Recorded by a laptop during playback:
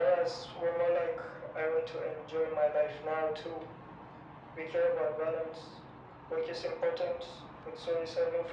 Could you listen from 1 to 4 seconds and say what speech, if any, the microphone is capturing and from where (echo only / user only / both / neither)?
echo only